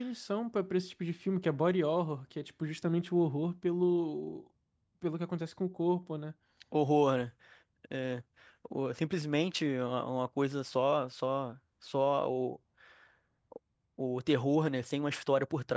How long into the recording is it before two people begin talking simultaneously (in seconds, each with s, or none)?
none